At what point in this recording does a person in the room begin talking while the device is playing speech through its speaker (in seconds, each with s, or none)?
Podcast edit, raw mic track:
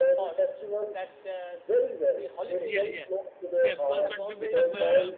2.6 s